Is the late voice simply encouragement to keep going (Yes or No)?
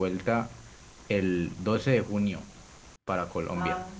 Yes